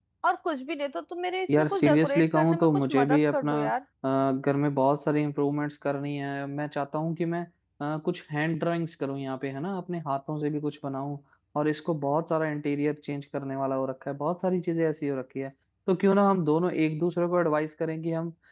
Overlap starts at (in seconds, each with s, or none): 1.5 s